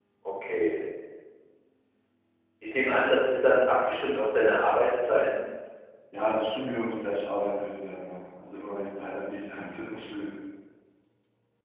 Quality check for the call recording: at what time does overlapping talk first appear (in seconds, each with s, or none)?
none